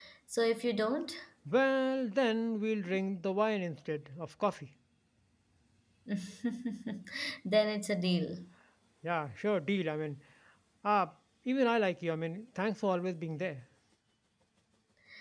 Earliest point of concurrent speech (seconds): none

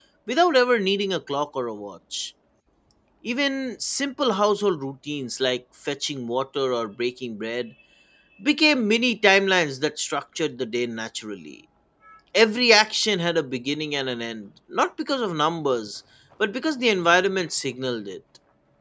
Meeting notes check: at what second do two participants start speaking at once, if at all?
none

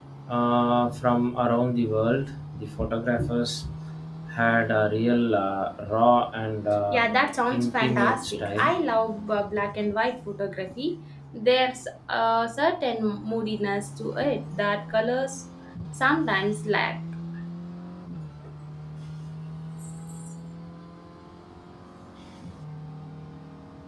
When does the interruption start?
6.9 s

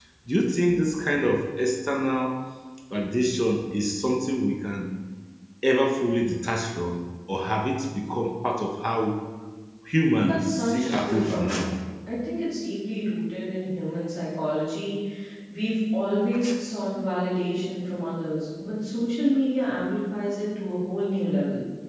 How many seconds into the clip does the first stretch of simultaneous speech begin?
10.2 s

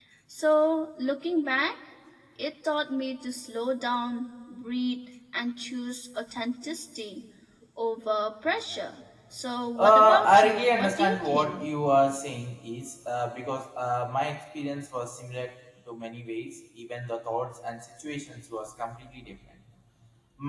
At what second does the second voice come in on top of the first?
9.8 s

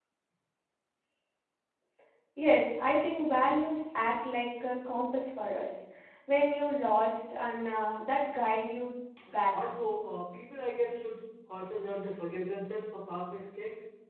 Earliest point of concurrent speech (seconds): none

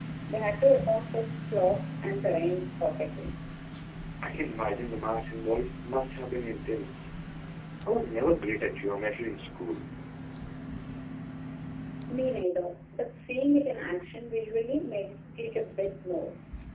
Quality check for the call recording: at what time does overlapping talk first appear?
none

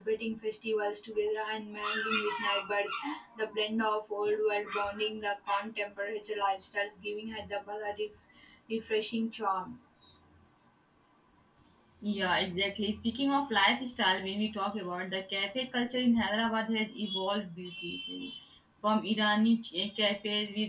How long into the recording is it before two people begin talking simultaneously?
none

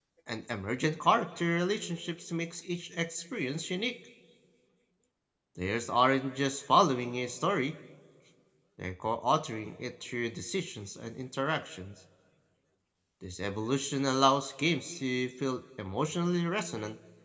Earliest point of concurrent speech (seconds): none

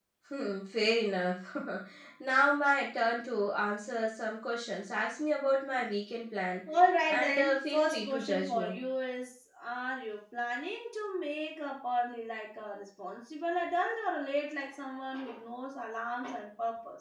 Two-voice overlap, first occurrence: 7.1 s

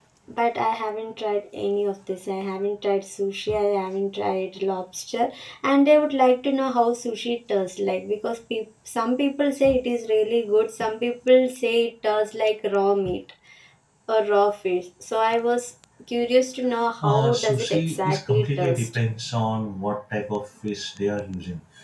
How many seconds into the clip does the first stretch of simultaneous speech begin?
17.0 s

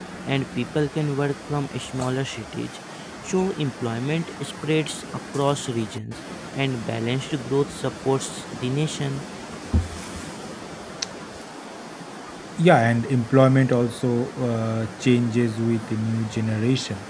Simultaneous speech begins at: none

